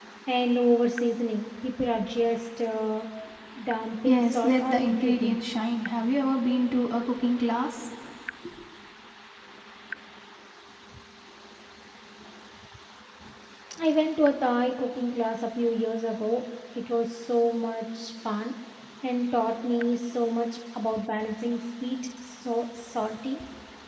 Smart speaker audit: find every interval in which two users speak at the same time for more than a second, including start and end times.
4.0-5.4

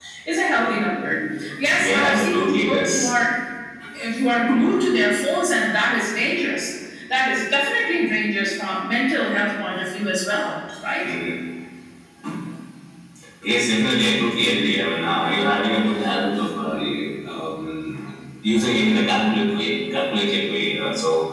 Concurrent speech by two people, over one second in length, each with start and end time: 1.7-3.1

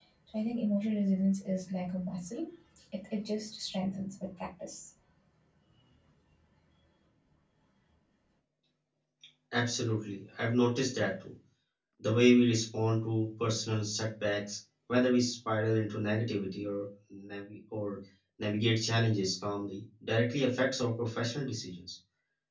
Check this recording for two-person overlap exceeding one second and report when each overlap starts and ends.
none

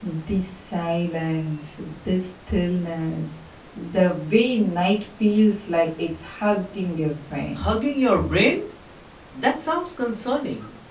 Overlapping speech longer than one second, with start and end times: none

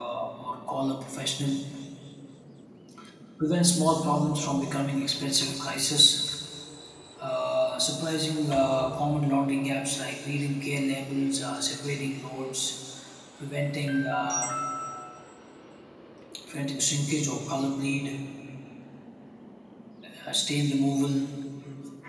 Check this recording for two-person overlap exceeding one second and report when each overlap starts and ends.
none

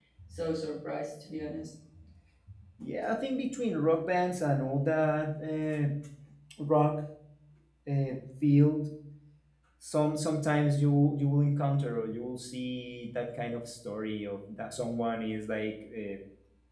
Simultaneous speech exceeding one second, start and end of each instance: none

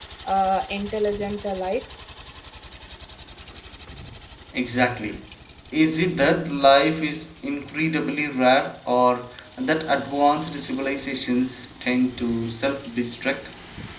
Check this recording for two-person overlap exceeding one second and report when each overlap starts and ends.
none

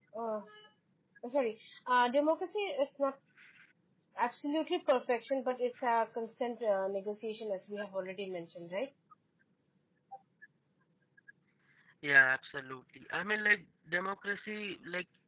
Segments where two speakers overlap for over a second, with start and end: none

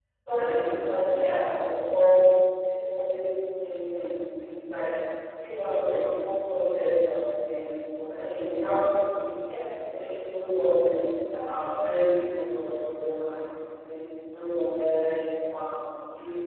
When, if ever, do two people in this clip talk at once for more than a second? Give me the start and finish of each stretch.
none

